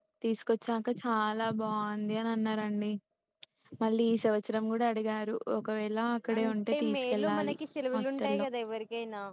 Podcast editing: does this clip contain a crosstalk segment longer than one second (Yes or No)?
Yes